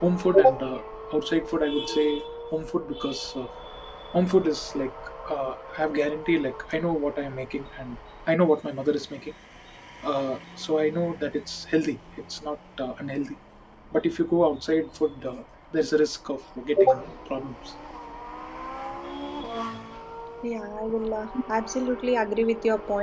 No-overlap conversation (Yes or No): Yes